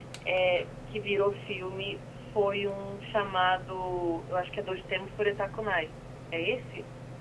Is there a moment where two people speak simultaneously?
No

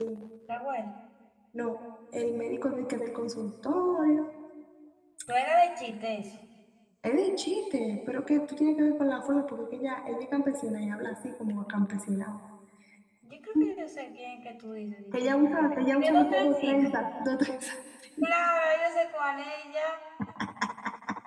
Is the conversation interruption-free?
No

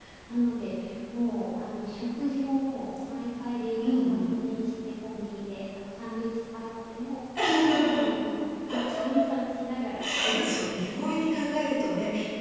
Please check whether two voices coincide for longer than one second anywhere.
No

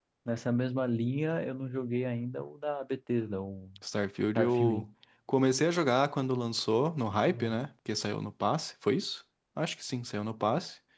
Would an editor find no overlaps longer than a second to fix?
Yes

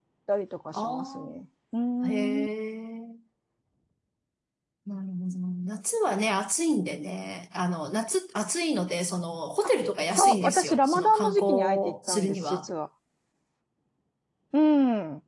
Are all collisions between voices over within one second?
No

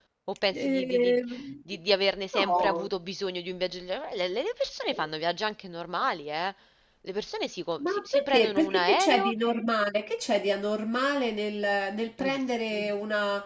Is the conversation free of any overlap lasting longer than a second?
No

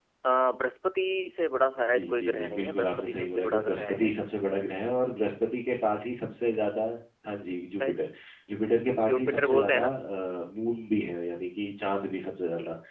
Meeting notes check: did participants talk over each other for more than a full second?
Yes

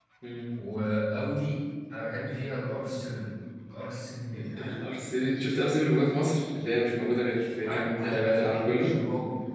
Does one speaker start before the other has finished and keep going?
Yes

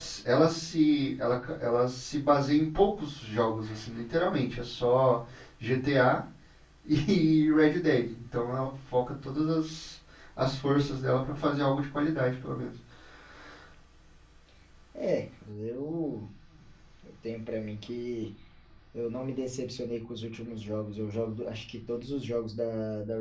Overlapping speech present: No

